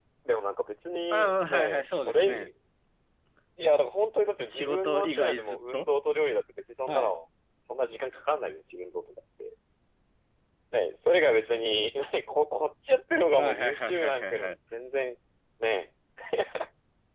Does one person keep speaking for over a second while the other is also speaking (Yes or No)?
Yes